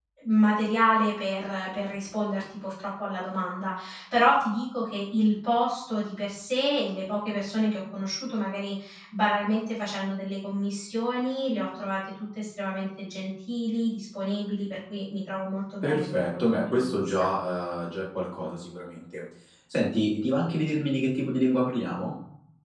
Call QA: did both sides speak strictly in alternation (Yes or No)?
No